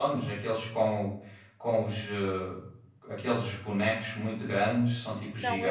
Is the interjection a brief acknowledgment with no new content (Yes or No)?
No